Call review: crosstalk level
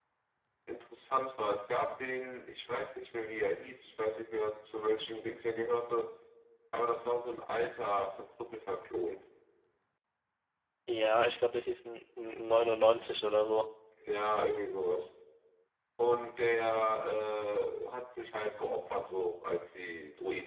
none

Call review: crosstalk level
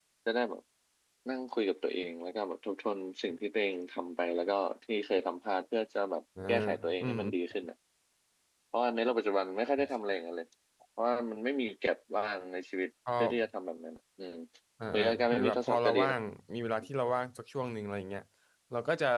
present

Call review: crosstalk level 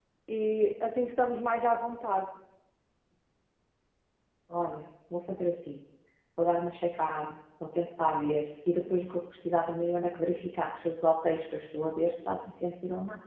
none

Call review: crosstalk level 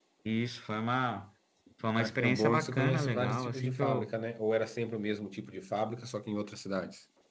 present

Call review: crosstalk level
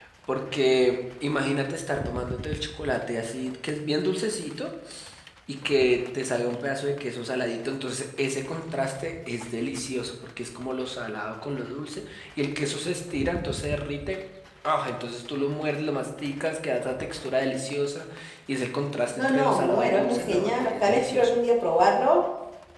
present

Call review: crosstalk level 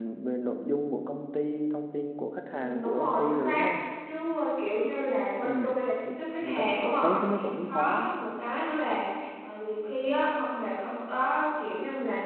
present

